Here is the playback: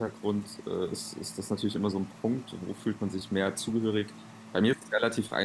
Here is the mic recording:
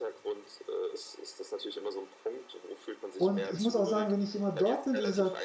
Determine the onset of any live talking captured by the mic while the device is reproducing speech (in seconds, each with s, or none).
3.1 s